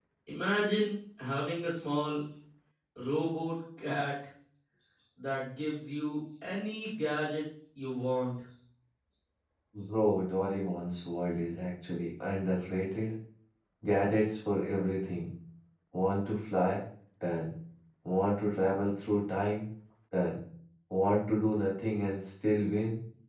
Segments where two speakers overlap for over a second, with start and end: none

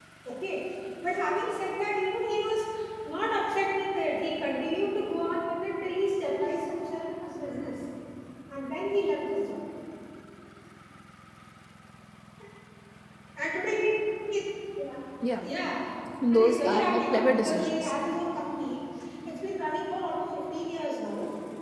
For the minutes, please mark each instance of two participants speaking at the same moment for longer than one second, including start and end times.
16.3-17.9

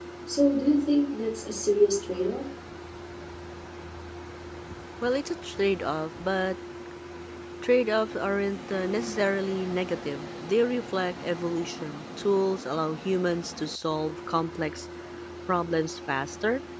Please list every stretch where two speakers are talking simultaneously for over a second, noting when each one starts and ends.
none

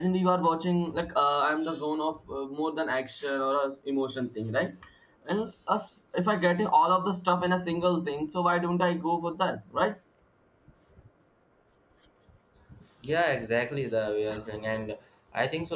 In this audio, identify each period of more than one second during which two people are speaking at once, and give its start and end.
none

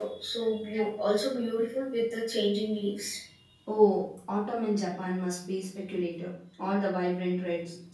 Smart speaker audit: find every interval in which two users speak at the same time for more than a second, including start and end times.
none

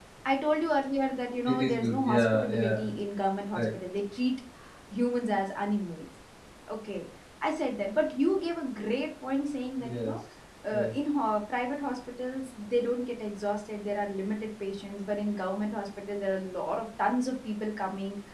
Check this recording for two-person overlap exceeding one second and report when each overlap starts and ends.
1.5-2.8

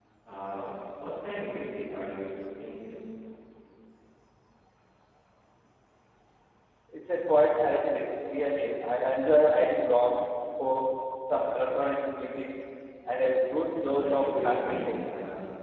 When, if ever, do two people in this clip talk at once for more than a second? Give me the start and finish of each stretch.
13.8-15.1

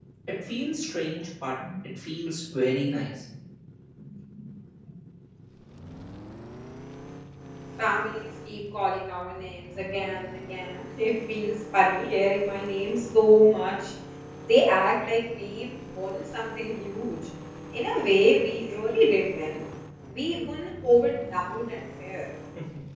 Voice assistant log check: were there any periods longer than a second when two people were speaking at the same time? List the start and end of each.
none

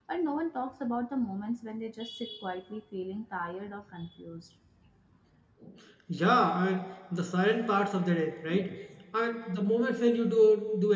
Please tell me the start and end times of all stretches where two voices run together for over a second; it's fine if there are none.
none

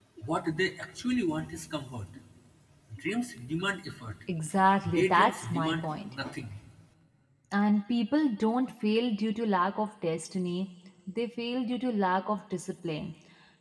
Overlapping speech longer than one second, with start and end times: 4.9-6.1

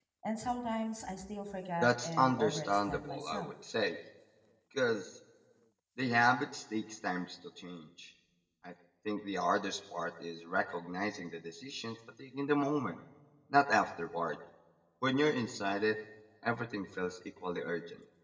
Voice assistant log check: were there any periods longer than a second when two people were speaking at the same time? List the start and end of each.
1.8-3.5

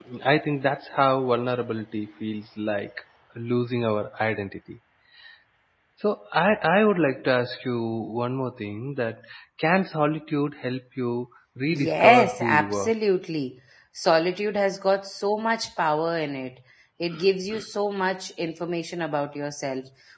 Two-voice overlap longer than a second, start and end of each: 11.7-12.9

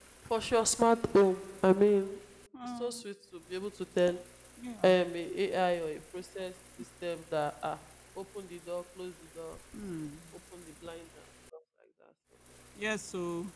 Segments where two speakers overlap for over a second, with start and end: none

